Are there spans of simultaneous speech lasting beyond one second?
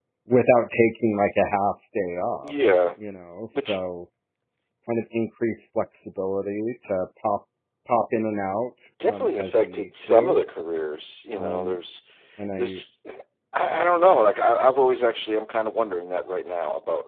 Yes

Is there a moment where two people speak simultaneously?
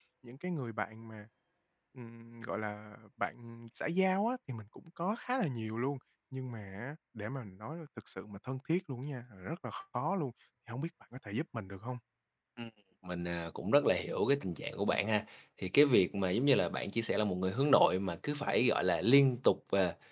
No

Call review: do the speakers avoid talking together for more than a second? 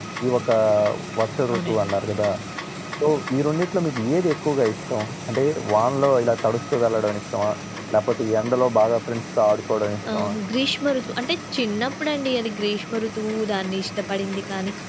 Yes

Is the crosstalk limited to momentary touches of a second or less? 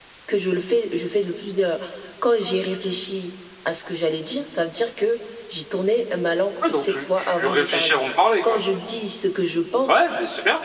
No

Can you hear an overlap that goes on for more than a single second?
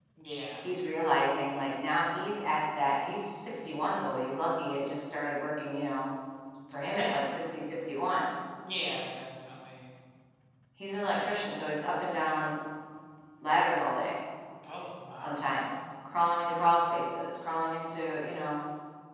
No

